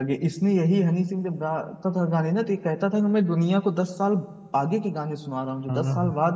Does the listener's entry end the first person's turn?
No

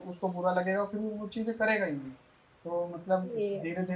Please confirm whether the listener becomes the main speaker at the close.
No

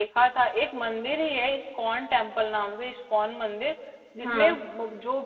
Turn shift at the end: No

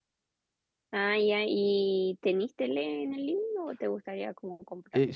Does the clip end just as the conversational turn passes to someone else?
Yes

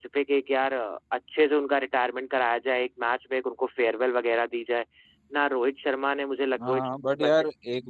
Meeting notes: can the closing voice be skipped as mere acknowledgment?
No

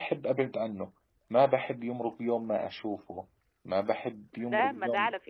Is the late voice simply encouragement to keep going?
No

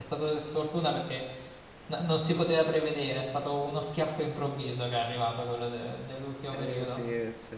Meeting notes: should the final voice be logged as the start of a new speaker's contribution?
Yes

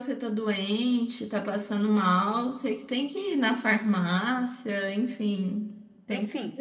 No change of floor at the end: No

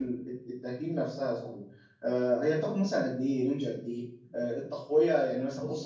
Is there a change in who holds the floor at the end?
No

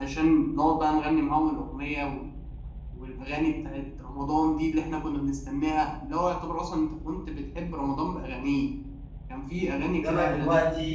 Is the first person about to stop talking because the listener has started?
Yes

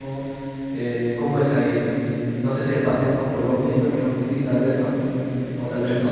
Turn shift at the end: No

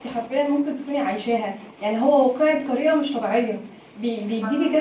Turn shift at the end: No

